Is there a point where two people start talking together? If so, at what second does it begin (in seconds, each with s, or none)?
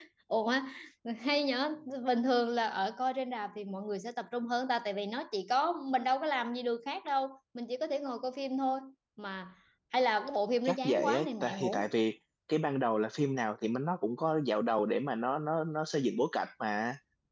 10.6 s